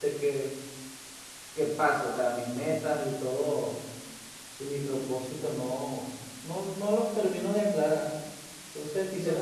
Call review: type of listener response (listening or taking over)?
listening